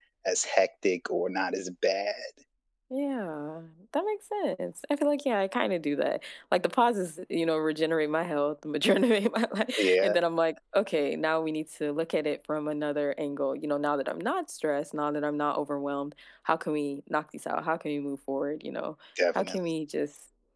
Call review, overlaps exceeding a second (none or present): none